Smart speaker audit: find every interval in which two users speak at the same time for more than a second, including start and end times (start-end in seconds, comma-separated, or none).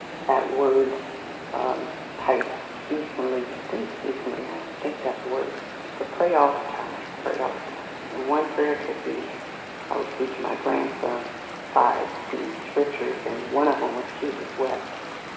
none